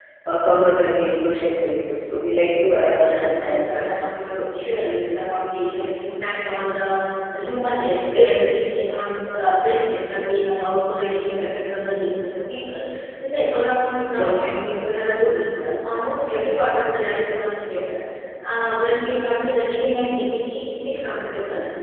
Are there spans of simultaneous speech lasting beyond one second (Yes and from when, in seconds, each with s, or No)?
Yes, from 3.0 s